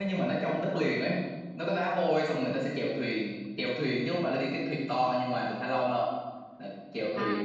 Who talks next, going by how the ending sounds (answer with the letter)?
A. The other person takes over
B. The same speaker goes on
A